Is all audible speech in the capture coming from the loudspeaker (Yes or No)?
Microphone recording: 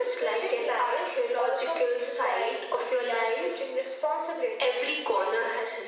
Yes